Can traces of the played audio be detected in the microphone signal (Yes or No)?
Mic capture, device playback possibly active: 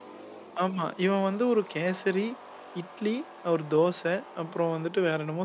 No